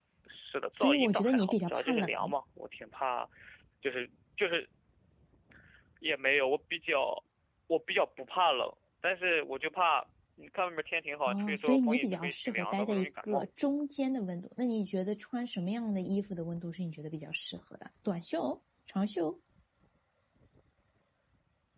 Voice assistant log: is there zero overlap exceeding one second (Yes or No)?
No